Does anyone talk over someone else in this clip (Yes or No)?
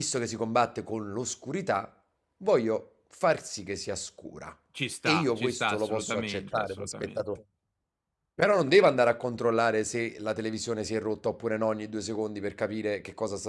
Yes